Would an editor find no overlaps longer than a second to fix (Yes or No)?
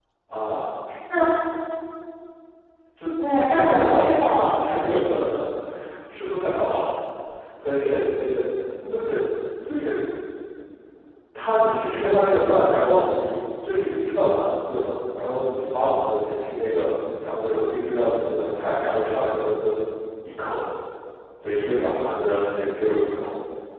No